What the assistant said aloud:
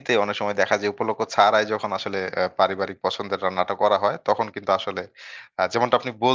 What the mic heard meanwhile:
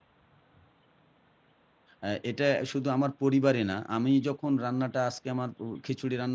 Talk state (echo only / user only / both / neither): user only